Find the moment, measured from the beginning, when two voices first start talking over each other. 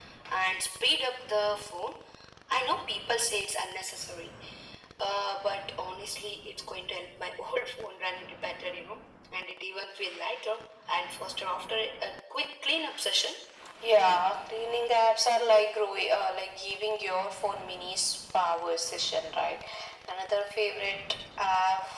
none

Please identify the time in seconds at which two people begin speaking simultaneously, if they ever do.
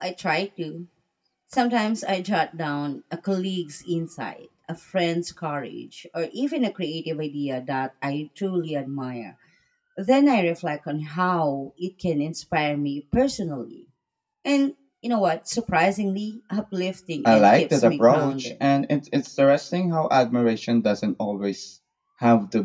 17.2 s

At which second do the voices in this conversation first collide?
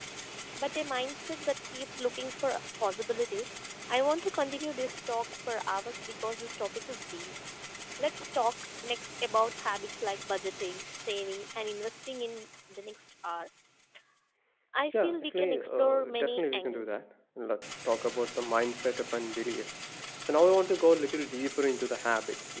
15.0 s

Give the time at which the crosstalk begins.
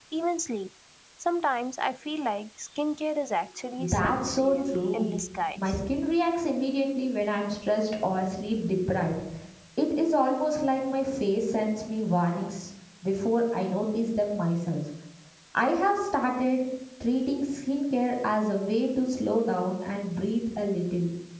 3.8 s

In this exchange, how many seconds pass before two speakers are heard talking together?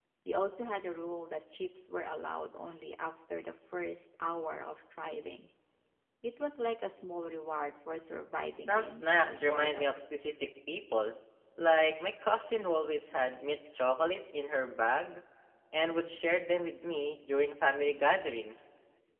8.7 s

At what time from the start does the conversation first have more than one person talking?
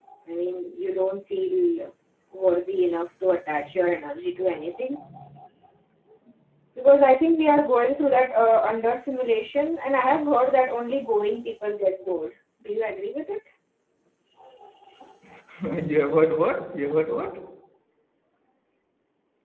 none

